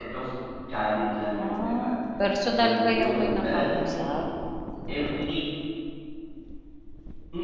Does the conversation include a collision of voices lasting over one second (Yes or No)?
Yes